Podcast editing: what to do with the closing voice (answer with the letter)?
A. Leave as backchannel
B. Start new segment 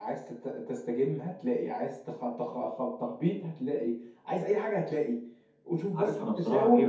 B